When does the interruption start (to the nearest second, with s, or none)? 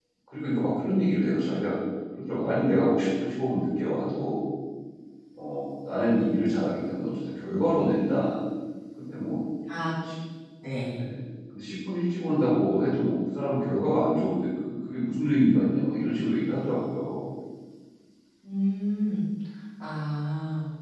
none